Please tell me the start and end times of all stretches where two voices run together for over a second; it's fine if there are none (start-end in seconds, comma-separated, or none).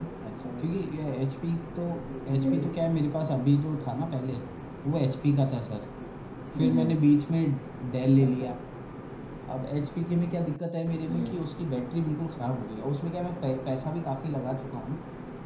none